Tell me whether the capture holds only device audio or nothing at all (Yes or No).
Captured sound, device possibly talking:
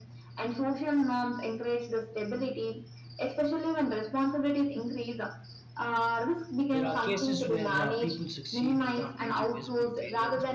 No